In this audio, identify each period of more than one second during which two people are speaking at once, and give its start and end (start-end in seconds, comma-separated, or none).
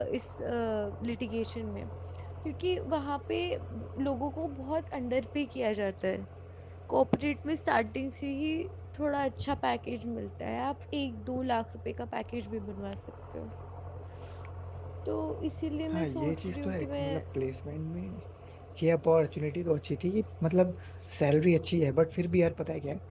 15.9-17.2